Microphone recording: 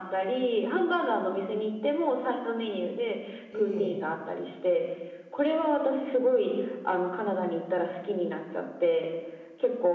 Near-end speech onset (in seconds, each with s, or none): 3.5 s